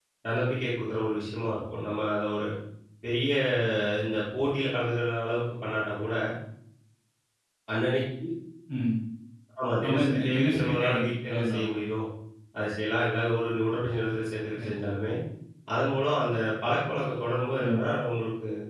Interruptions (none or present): present